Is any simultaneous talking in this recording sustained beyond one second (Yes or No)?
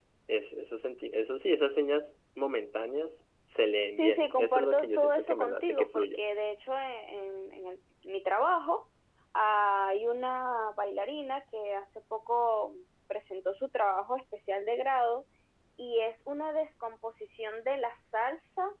Yes